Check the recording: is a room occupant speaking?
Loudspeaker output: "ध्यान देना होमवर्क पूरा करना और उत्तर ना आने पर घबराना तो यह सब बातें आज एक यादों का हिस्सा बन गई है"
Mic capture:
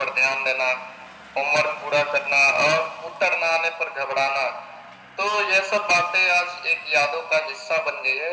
No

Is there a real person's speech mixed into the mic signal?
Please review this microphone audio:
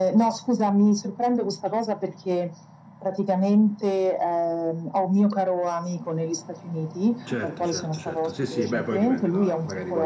Yes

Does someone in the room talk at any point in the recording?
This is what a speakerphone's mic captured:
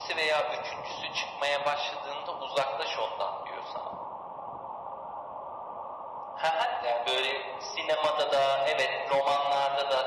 No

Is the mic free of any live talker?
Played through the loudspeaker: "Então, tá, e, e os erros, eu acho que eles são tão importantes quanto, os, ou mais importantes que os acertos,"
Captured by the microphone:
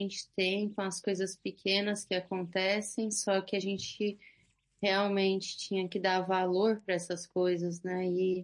No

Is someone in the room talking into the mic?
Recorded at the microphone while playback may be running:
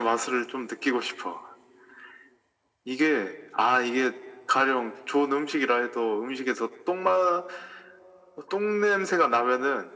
No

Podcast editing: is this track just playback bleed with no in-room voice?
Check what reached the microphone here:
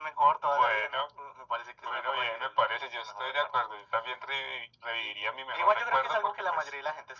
Yes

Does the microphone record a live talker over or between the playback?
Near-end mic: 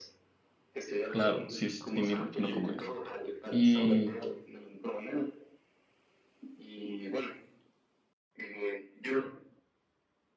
Yes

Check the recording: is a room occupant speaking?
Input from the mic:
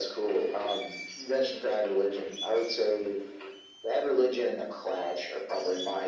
No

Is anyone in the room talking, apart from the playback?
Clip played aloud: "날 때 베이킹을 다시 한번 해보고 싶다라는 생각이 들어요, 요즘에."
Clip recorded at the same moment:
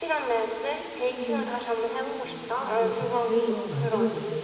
Yes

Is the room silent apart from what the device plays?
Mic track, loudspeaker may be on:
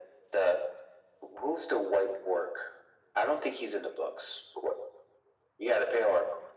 Yes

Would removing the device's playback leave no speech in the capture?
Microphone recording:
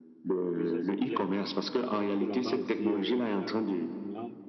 No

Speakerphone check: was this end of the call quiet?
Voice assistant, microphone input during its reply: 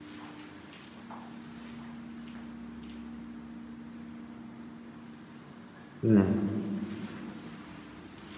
No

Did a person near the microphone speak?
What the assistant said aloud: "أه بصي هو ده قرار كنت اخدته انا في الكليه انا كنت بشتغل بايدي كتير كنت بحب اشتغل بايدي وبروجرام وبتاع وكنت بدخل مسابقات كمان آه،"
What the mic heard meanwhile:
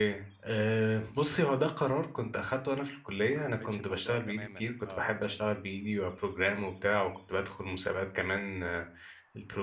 Yes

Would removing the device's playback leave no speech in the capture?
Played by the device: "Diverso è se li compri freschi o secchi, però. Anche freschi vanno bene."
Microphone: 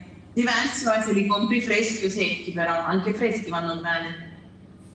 Yes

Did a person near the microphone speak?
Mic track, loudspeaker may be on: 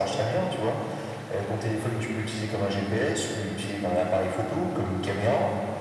No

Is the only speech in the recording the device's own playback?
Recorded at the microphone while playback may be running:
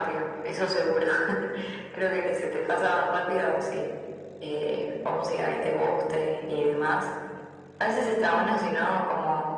Yes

